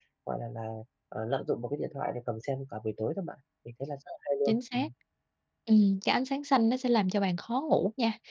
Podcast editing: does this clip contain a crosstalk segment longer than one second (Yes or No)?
No